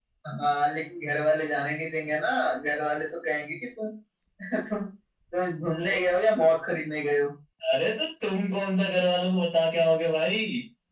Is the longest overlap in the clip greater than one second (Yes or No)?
No